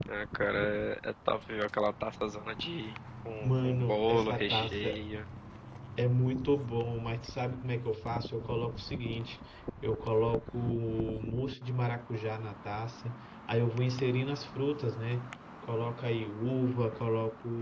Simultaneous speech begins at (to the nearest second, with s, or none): 3 s